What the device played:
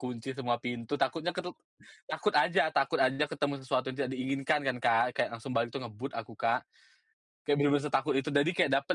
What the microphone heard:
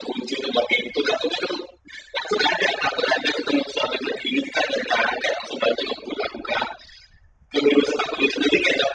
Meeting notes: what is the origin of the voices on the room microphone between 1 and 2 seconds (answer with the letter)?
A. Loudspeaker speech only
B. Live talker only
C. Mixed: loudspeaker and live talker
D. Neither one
A